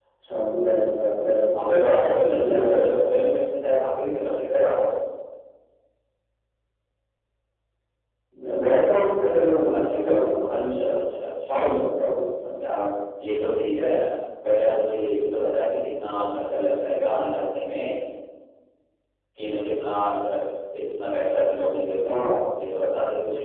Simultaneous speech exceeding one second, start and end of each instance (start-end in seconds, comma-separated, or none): 1.5-3.3, 9.3-10.9